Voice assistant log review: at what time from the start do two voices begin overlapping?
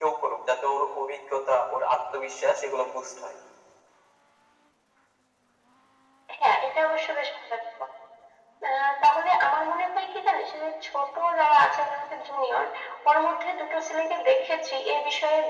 none

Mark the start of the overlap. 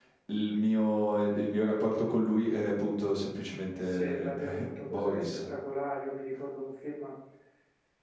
4.0 s

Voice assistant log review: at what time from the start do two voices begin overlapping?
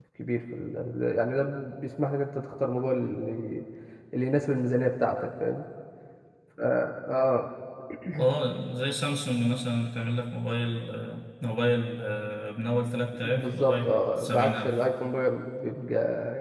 13.2 s

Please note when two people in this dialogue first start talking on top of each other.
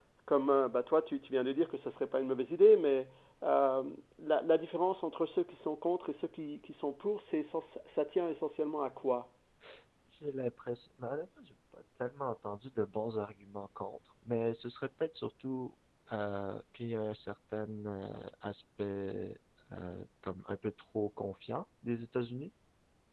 none

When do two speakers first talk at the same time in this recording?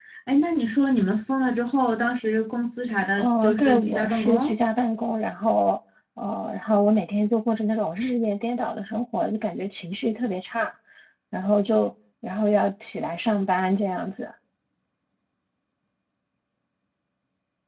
3.1 s

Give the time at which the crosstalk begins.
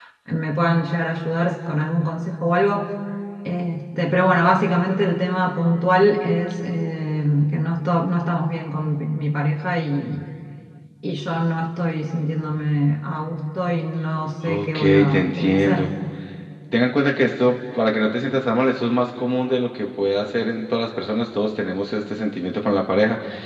14.4 s

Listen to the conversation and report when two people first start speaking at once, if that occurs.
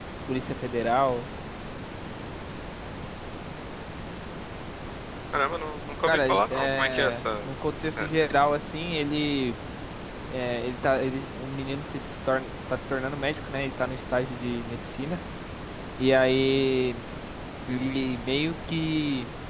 6.0 s

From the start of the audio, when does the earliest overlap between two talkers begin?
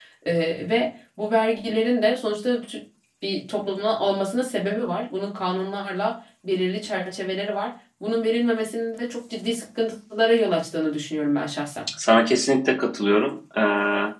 none

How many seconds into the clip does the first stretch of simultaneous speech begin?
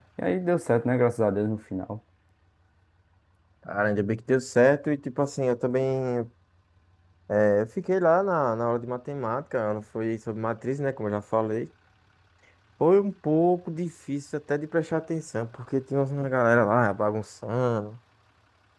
none

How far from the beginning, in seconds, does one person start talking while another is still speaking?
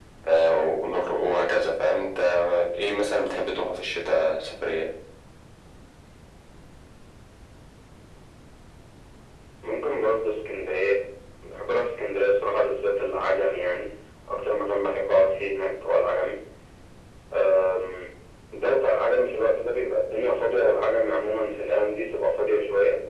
none

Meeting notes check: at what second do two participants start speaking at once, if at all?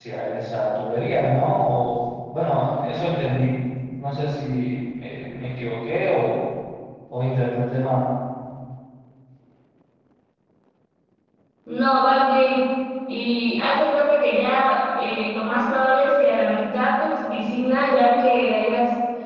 none

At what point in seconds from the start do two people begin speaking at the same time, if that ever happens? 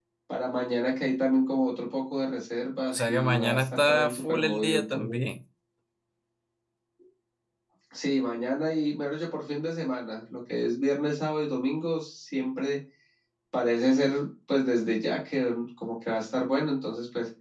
2.8 s

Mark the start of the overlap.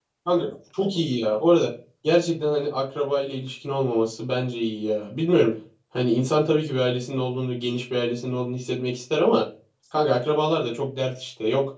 none

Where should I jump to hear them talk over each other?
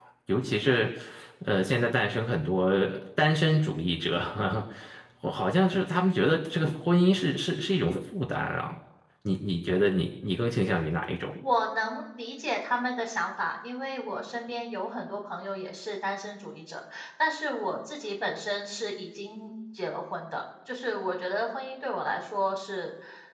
none

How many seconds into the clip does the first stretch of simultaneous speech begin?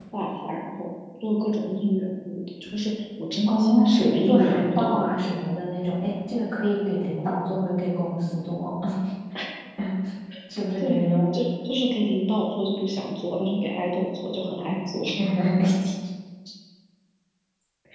3.5 s

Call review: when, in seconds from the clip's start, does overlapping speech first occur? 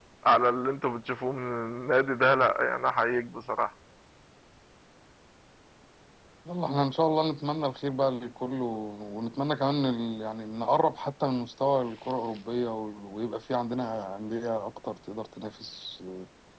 none

